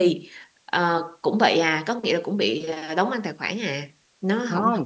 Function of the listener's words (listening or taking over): taking over